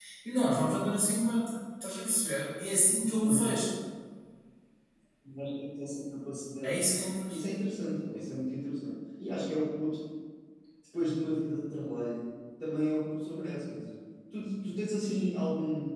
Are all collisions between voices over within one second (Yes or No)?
Yes